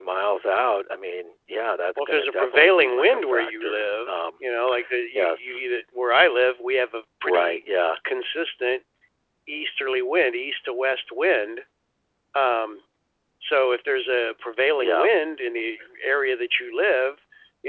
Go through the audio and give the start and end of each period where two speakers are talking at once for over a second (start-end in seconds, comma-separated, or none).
2.0-4.4